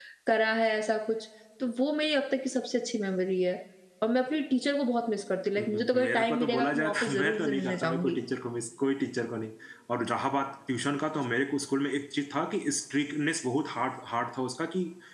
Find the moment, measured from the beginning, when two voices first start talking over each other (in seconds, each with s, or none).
5.6 s